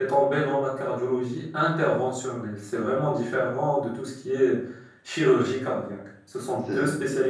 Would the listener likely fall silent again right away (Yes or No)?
Yes